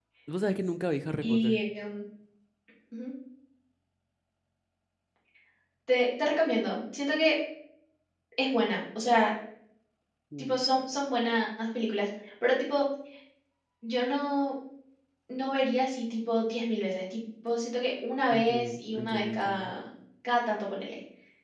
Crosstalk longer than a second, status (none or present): present